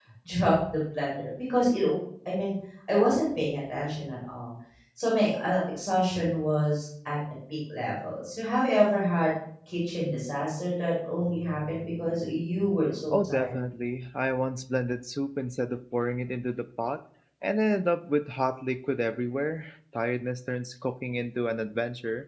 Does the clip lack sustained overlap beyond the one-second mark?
Yes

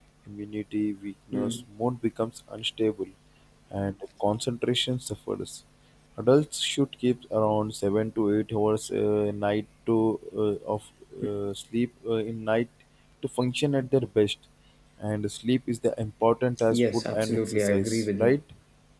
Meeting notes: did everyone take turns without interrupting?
No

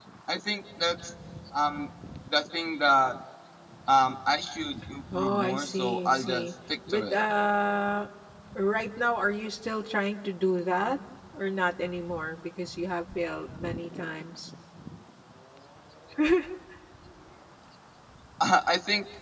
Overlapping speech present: Yes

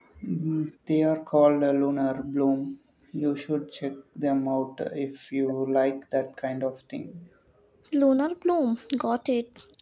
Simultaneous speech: No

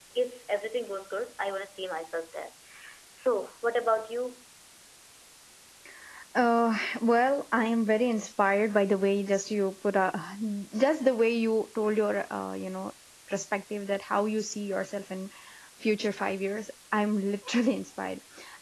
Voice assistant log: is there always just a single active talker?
Yes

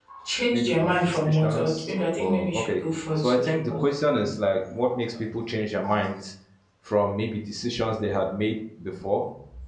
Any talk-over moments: Yes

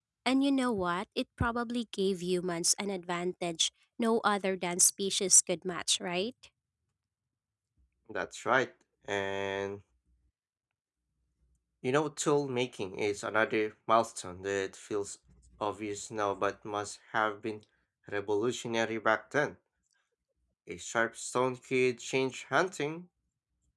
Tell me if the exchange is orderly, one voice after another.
Yes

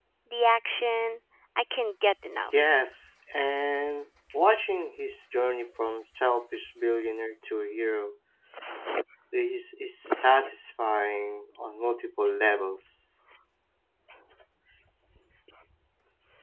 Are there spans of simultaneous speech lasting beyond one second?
No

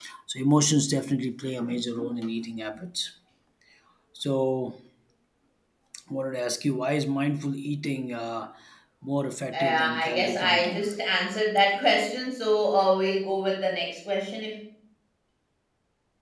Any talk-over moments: Yes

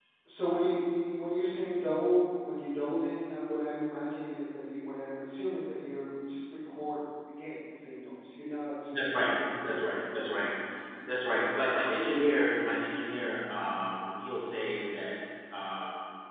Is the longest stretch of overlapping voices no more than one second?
No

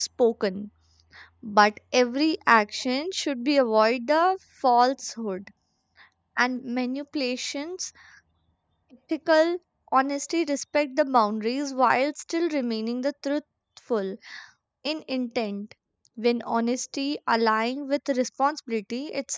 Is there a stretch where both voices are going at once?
No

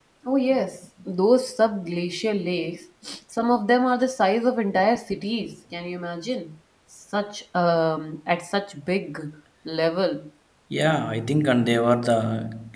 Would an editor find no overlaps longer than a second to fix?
Yes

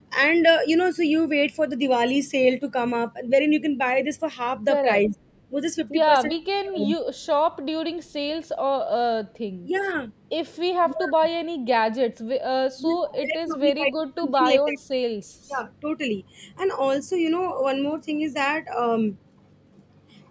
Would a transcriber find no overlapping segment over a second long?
No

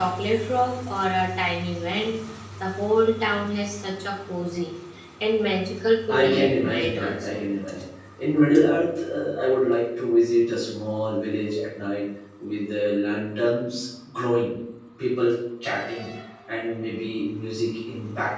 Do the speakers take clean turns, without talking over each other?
No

